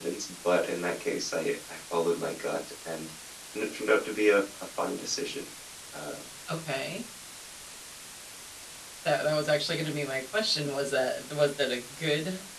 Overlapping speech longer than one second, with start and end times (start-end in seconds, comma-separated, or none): none